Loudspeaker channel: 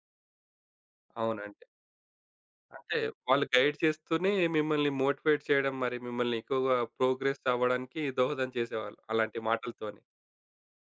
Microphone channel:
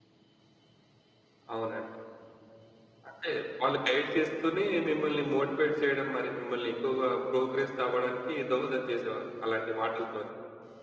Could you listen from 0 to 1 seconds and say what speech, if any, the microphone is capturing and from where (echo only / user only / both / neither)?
neither